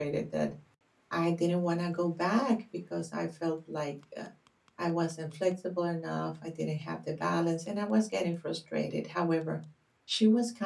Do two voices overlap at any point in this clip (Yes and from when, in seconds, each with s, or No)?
No